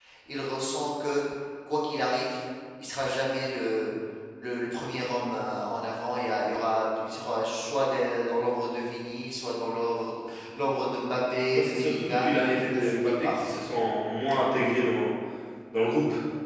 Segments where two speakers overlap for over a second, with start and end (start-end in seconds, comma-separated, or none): 11.6-13.5